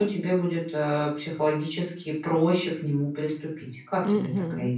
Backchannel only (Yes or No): No